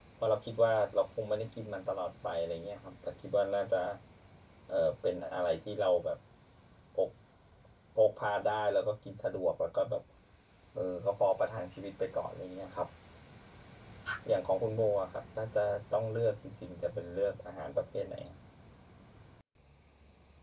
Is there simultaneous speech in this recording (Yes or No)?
No